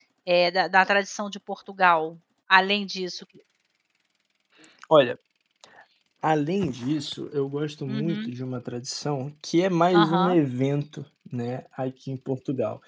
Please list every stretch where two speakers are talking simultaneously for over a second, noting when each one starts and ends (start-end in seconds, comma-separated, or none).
none